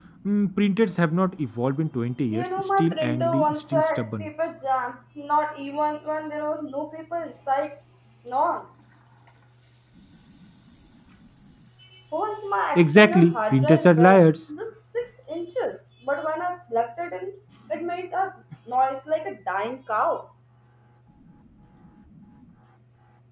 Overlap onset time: 2.3 s

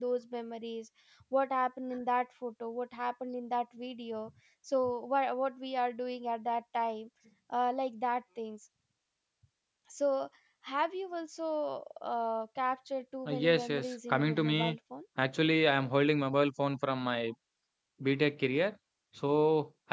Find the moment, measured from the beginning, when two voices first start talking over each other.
13.2 s

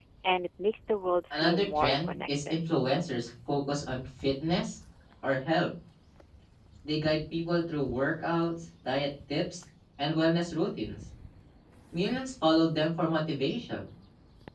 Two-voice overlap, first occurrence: 1.3 s

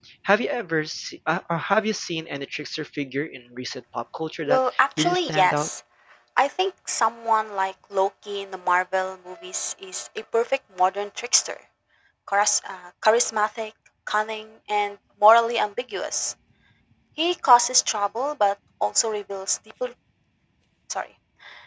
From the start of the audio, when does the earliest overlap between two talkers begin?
4.5 s

